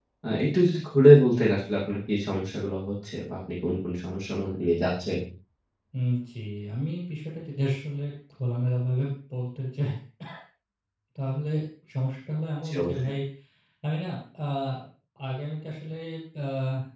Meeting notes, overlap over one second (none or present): none